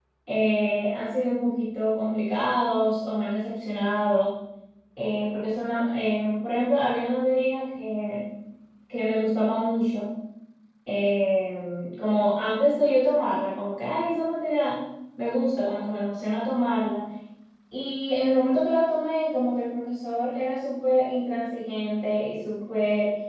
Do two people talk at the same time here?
No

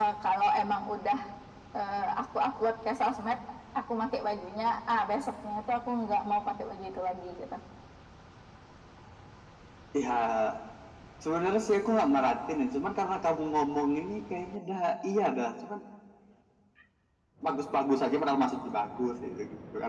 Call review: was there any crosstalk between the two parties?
No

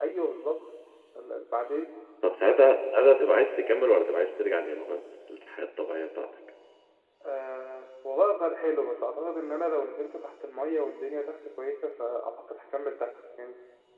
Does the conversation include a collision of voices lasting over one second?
No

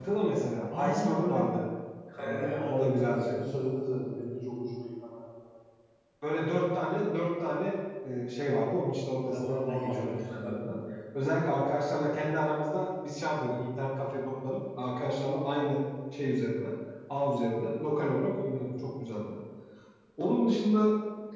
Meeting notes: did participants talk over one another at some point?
Yes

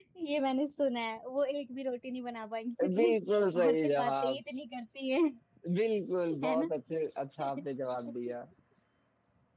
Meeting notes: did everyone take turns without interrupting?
No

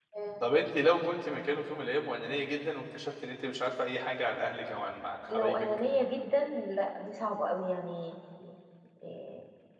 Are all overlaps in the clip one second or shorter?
Yes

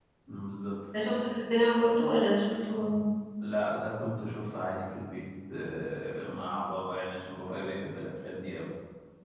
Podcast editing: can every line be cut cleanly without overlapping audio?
Yes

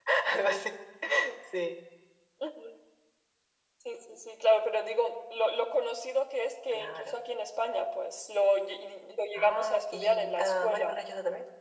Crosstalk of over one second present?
Yes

